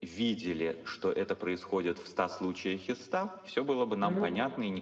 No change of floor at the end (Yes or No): Yes